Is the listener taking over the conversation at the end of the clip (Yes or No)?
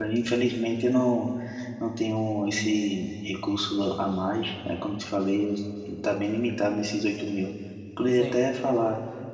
No